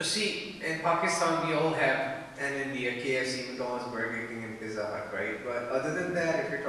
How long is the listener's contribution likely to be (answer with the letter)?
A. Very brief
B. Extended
A